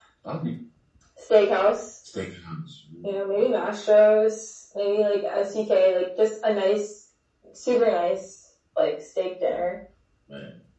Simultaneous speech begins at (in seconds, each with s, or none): none